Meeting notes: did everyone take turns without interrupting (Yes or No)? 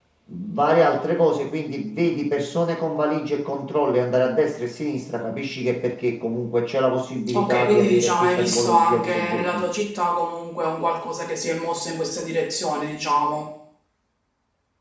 No